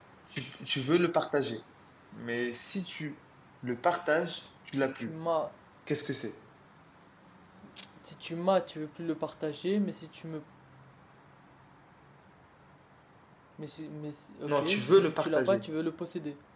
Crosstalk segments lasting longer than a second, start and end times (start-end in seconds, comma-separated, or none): 14.5-15.7